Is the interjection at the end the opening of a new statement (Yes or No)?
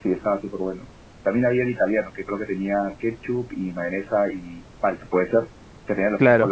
Yes